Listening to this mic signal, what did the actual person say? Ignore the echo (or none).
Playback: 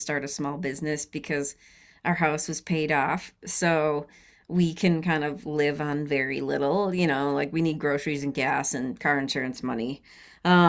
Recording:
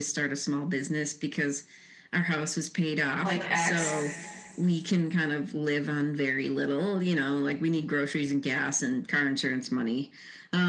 like X.